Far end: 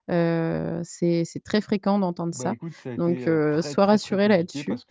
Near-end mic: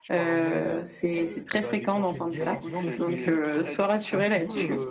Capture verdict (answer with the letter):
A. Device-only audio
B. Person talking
B